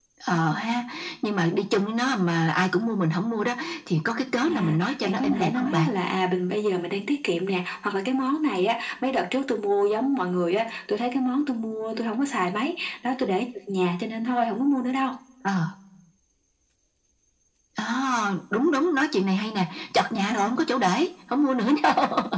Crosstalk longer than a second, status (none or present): present